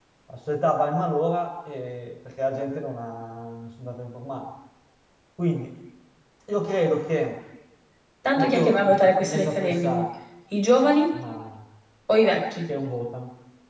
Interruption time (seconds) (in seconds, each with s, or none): 8.3 s